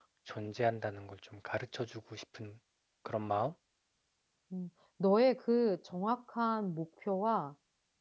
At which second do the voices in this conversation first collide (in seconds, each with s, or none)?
none